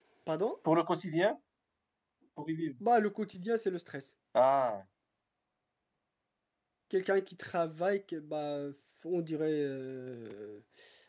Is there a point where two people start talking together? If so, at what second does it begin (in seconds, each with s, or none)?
none